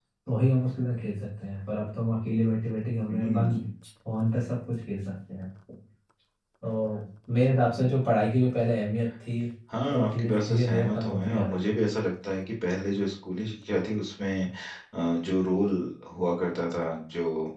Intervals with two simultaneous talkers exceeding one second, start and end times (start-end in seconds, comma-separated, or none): 9.9-11.7